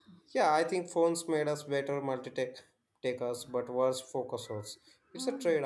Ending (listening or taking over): taking over